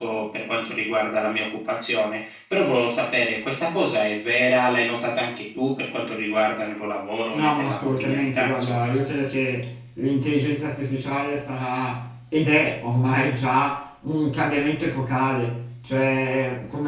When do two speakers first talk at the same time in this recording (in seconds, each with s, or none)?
7.3 s